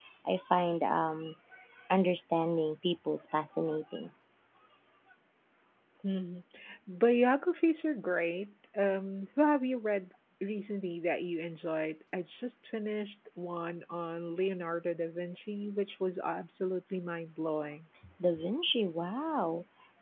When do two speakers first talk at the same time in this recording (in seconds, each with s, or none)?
none